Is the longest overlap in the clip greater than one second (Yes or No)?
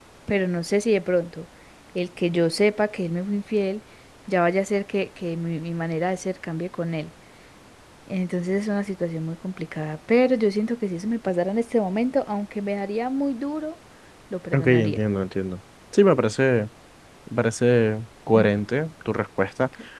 No